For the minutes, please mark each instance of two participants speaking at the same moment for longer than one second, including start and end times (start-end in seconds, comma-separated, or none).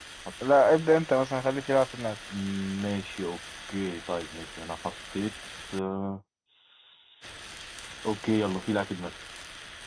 none